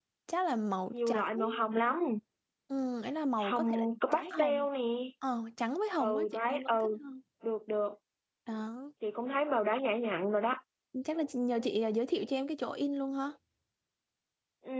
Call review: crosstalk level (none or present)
present